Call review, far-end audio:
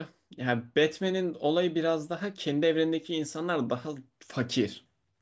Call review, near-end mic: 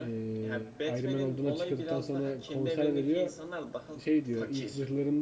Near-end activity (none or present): present